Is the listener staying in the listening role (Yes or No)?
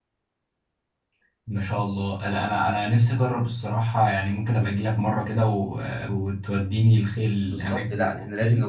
No